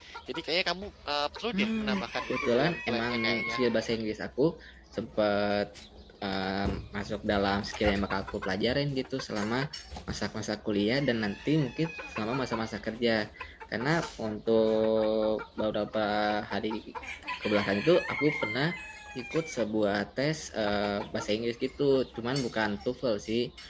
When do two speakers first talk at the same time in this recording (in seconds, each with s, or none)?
1.5 s